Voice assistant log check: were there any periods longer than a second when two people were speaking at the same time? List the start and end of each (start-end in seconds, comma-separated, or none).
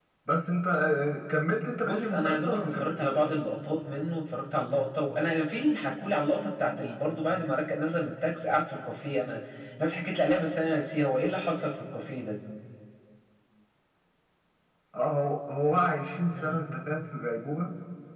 1.8-3.2